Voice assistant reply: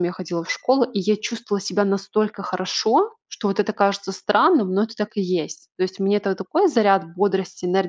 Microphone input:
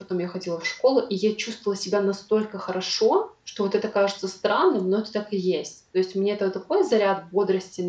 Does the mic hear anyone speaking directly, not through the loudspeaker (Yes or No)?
No